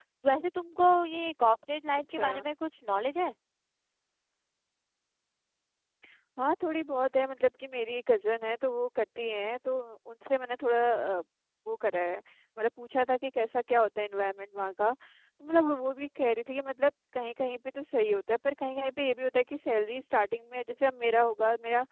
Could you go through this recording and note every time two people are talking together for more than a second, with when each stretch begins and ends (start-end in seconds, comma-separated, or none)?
none